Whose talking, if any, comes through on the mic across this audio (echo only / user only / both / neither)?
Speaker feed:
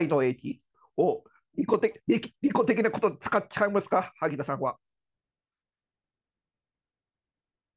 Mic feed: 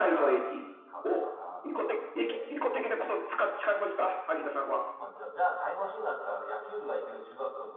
both